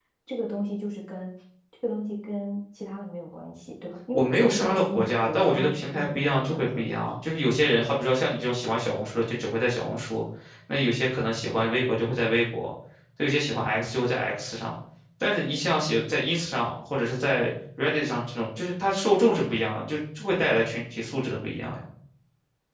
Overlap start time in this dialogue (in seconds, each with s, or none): 4.1 s